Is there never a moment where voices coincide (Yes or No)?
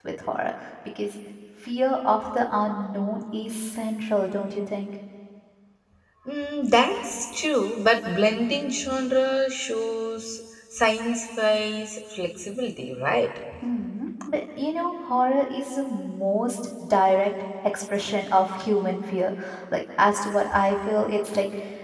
Yes